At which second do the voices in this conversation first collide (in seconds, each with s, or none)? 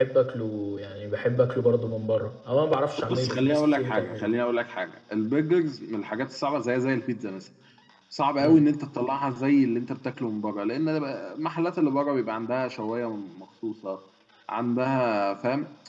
3.1 s